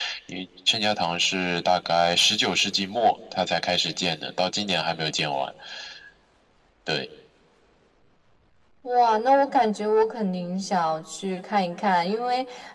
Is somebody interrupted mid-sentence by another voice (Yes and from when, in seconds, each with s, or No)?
No